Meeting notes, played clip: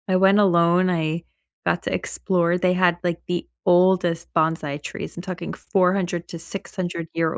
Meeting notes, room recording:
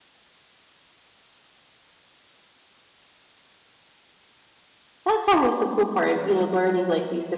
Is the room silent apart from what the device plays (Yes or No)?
No